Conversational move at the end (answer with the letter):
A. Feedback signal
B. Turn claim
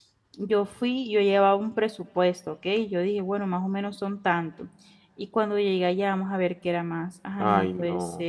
B